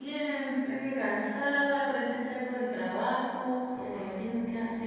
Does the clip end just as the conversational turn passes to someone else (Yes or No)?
No